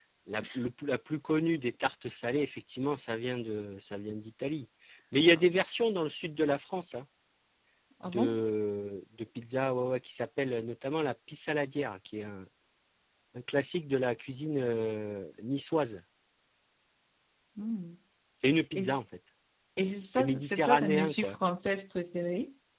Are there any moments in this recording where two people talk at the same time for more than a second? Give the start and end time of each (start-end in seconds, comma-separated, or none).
20.2-21.4